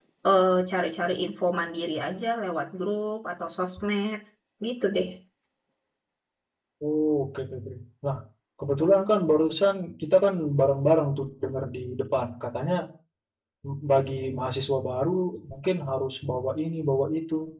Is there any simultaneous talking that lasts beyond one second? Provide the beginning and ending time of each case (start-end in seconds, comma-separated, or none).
none